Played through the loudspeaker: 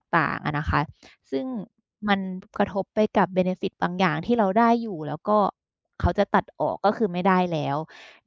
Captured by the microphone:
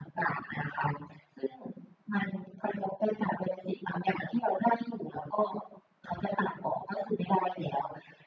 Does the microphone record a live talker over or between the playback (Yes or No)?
No